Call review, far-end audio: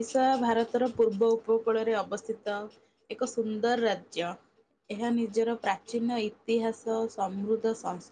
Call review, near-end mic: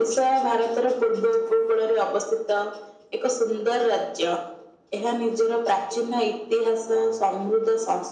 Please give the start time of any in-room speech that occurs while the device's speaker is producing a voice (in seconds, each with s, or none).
none